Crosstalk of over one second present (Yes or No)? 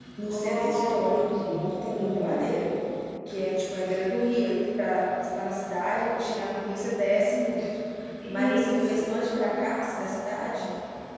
Yes